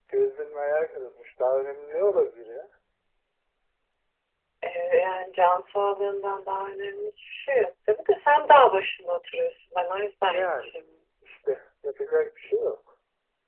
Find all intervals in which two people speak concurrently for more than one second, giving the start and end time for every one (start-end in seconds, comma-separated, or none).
none